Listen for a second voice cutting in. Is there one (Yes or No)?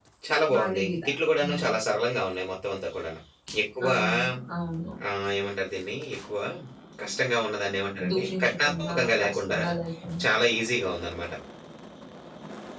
Yes